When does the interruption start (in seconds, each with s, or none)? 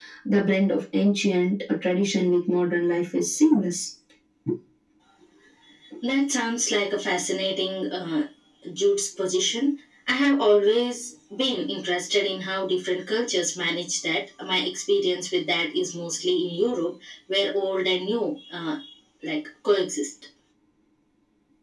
none